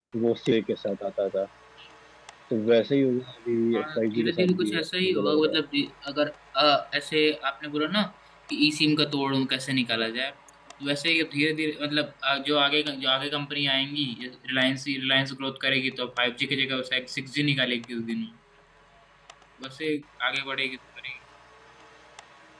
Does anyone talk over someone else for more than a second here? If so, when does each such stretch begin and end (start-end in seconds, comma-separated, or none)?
3.7-5.6